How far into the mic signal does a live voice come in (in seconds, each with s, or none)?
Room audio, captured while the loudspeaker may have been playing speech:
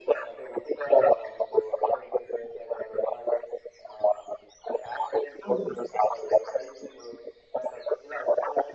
5.5 s